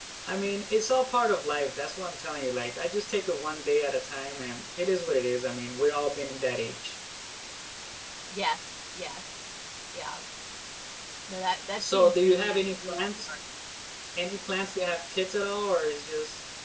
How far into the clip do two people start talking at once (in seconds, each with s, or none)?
11.8 s